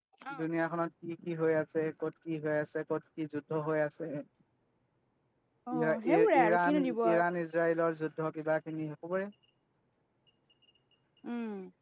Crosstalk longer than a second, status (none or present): present